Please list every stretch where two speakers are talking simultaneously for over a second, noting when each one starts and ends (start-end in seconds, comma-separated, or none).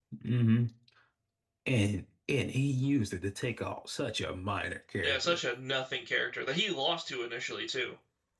none